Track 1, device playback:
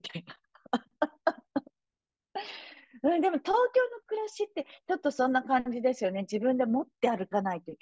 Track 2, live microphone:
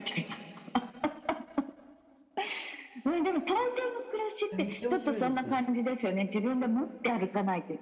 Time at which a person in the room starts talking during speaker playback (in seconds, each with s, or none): 4.5 s